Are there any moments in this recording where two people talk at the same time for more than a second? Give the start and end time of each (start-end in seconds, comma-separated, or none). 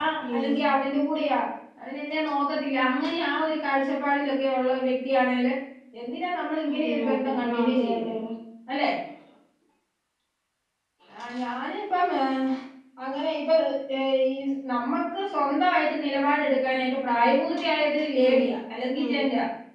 6.7-8.1